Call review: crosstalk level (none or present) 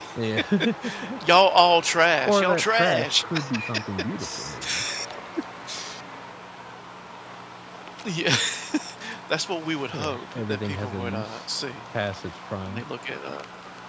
present